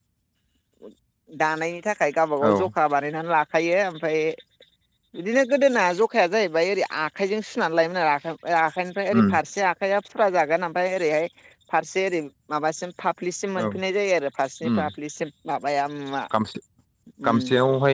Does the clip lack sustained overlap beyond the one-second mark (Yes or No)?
Yes